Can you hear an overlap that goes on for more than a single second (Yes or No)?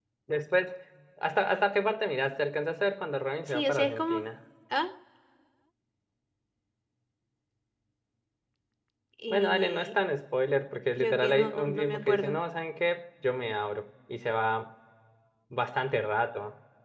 Yes